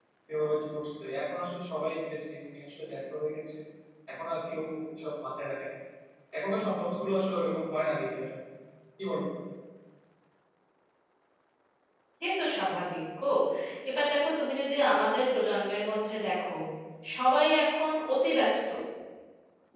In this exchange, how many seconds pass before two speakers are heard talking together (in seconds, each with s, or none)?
none